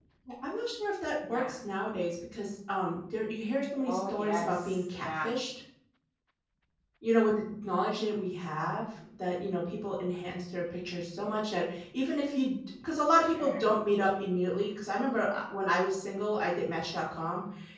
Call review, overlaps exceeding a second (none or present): present